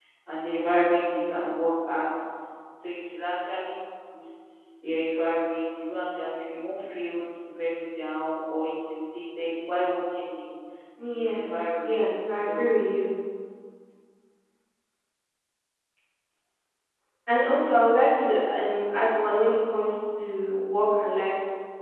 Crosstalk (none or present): present